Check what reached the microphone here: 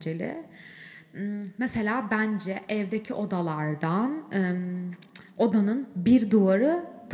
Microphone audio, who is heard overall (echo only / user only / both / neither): echo only